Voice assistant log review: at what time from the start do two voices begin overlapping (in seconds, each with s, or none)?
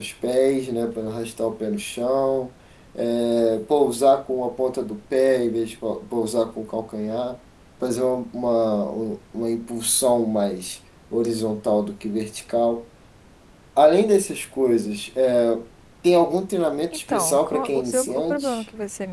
16.9 s